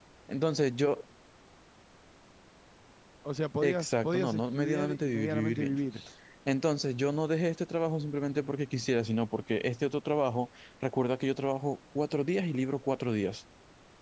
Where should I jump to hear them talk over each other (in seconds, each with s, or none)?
3.6 s